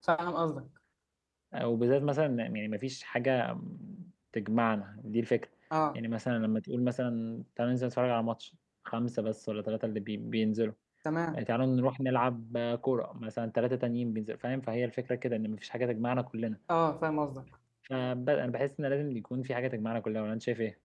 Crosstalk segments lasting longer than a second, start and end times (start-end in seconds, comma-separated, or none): none